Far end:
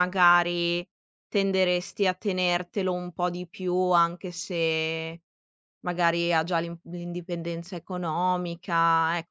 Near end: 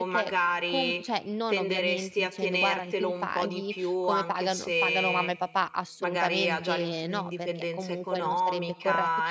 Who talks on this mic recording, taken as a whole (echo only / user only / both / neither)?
both